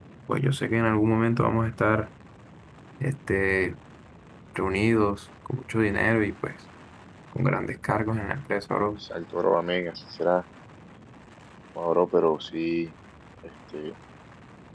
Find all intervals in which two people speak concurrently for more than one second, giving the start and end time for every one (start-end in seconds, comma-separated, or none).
none